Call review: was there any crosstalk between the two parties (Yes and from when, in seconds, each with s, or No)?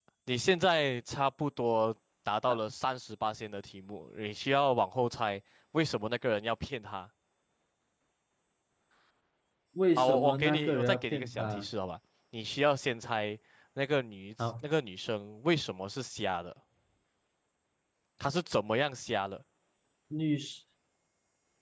Yes, from 10.0 s